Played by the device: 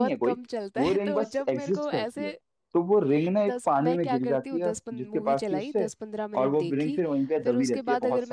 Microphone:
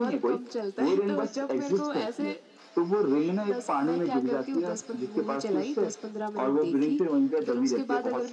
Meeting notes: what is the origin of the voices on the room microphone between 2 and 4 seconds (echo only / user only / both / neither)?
echo only